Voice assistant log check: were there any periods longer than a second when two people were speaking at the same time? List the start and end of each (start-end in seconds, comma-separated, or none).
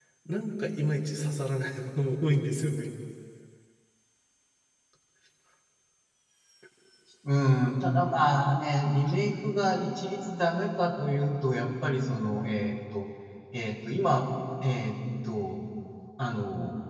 none